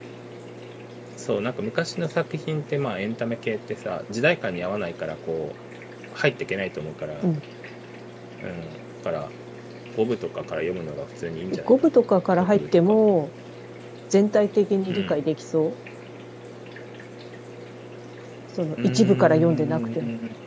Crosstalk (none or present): present